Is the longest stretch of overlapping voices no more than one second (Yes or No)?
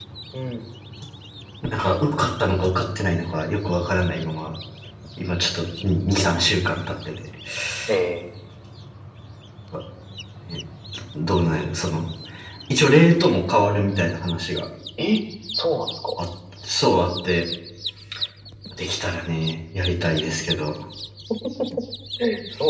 Yes